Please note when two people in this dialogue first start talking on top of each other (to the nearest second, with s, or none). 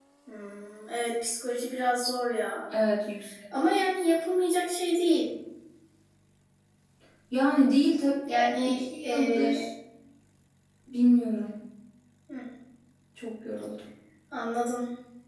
8 s